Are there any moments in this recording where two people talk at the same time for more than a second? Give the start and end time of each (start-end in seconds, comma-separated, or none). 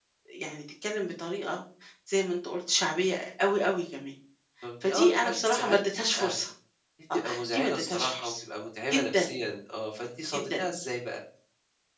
4.8-6.3, 7.1-8.4